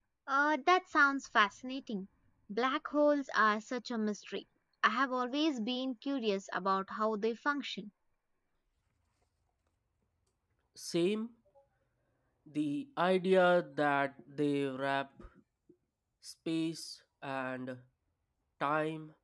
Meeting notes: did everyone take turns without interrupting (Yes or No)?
Yes